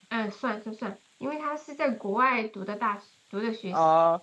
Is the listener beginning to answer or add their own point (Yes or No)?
Yes